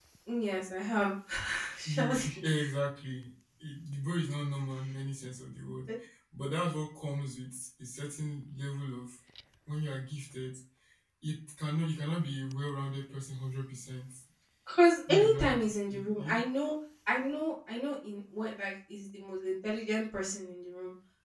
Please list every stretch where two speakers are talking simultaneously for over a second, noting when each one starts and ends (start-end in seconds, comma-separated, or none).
15.1-16.4